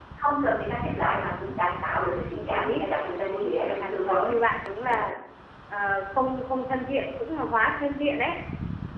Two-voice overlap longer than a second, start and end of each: 2.4-4.3

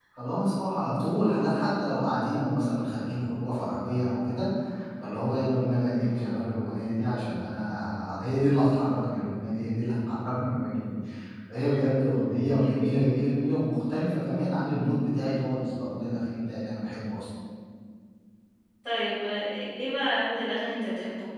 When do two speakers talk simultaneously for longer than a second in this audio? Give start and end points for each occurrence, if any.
none

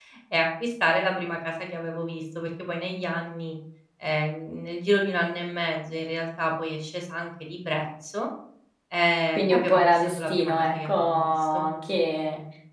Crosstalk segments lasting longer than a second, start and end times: 9.3-11.6

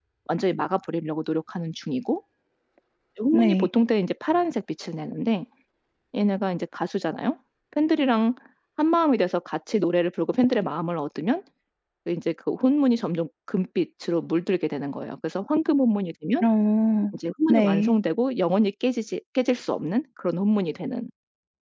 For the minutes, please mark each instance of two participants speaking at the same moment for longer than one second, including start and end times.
none

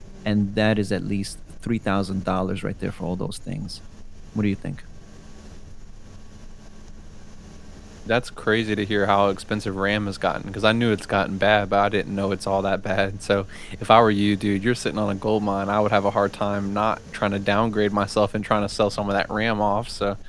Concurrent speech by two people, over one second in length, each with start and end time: none

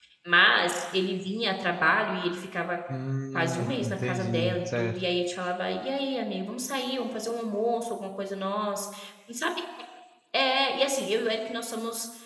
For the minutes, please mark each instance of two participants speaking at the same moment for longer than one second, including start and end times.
3.3-4.9

